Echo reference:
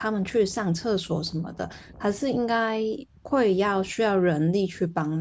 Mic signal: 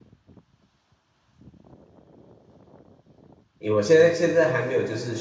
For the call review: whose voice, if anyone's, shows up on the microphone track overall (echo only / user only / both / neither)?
user only